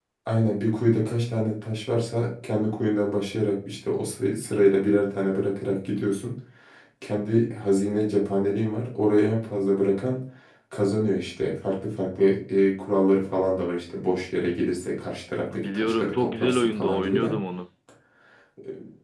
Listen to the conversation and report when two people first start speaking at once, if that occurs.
15.5 s

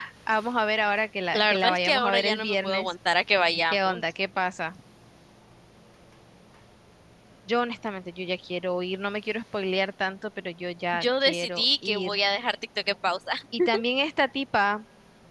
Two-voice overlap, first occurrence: 1.3 s

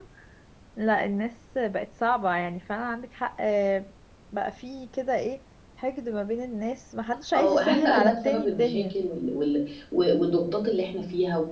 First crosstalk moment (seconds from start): 7.3 s

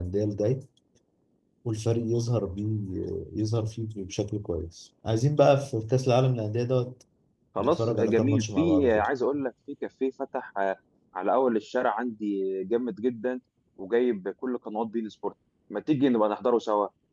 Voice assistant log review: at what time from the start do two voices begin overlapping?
7.6 s

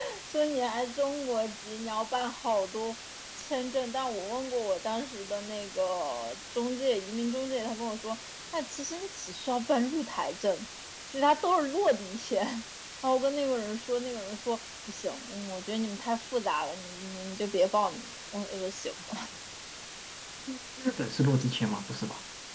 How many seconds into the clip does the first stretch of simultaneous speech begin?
none

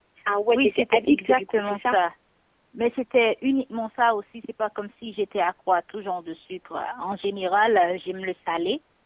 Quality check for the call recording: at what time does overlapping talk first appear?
0.6 s

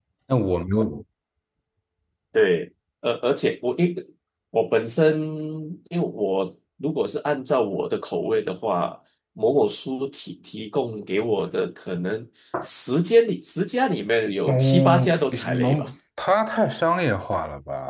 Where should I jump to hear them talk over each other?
14.4 s

